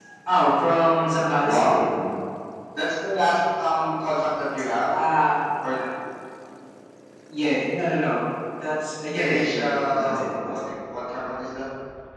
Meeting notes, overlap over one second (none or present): present